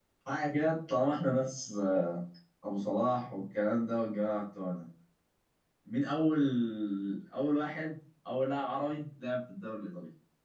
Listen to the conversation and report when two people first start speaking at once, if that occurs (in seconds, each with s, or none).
none